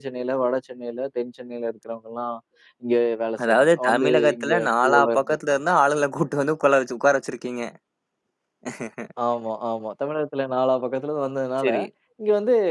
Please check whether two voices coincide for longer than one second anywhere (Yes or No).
Yes